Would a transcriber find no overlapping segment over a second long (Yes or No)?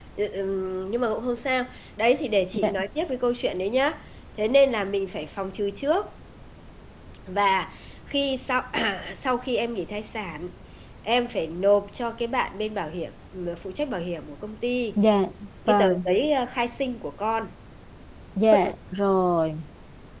Yes